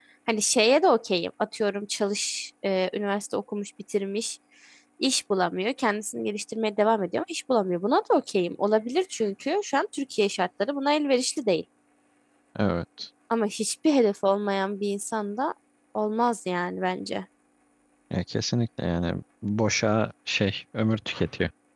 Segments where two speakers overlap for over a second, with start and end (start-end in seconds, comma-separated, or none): none